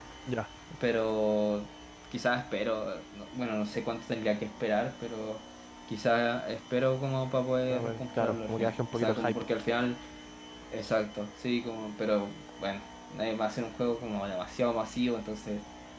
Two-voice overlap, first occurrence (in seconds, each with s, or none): 7.7 s